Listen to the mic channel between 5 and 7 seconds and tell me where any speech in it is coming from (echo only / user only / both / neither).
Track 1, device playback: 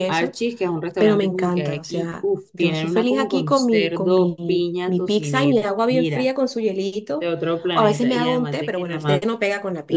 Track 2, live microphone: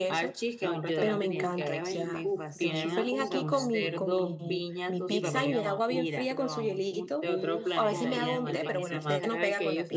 both